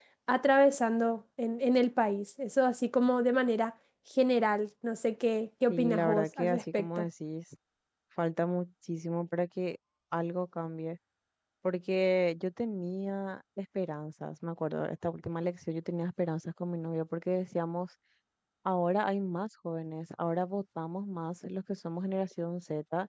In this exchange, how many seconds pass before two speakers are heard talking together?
5.7 s

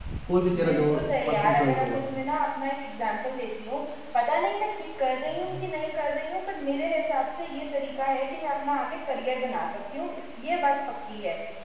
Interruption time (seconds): 0.6 s

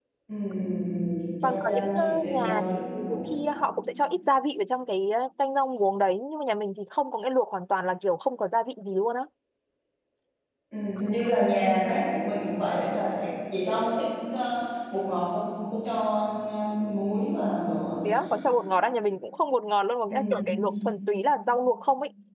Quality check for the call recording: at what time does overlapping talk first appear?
1.4 s

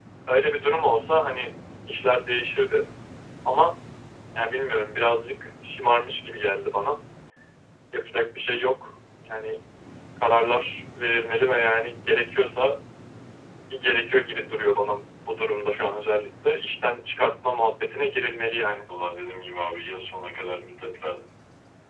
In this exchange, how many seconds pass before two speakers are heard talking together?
none

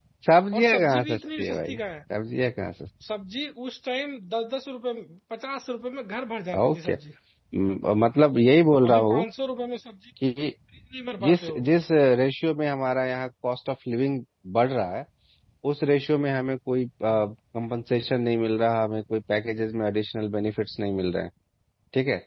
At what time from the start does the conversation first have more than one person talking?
0.5 s

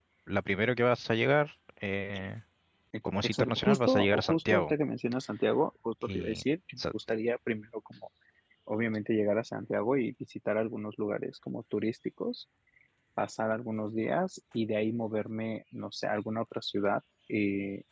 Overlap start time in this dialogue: 3.2 s

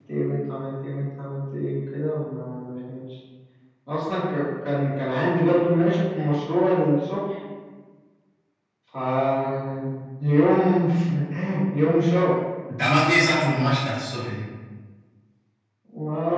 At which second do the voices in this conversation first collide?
none

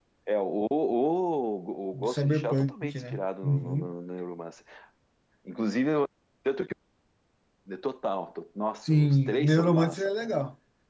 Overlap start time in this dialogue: 1.9 s

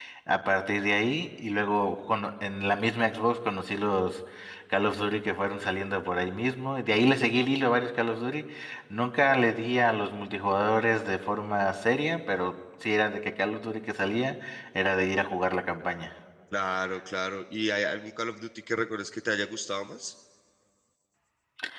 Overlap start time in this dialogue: none

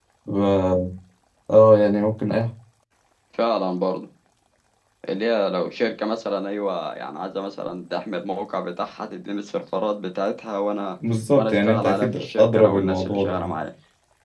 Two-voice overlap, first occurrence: 11.4 s

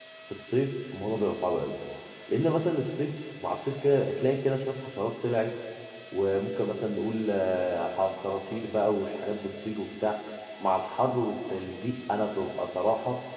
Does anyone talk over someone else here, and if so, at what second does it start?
none

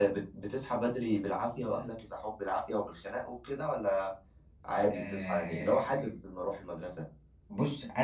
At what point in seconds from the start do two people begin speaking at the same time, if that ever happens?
4.9 s

